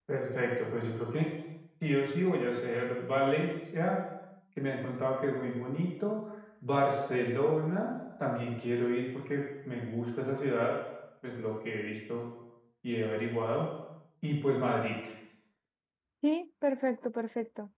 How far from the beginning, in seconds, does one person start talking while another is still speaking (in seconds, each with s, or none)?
none